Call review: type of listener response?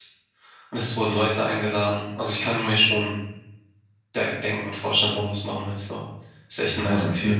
taking over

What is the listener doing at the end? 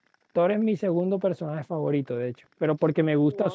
listening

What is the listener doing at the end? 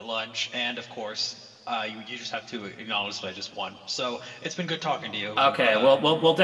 taking over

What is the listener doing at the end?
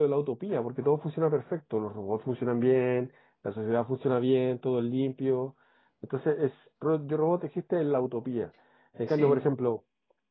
listening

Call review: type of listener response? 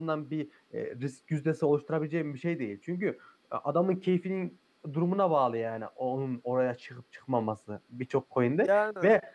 listening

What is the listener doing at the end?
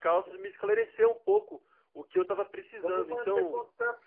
taking over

